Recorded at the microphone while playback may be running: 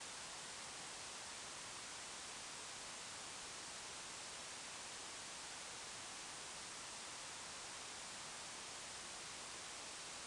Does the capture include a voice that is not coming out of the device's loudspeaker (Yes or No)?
No